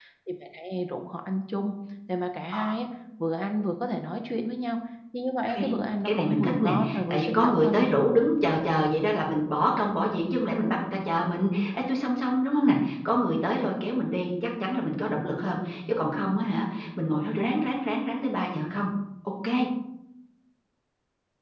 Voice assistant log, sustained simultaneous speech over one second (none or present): present